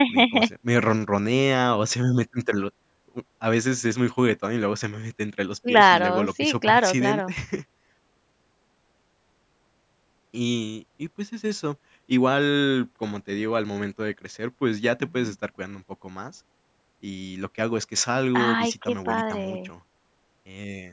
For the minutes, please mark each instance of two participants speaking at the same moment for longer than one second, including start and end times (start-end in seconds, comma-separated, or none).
5.7-7.3, 18.3-19.7